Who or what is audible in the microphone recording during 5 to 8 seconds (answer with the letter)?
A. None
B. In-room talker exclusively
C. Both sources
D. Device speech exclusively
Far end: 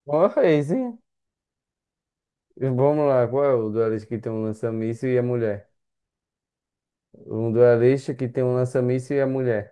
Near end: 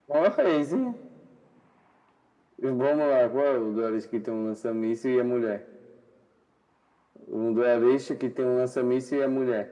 D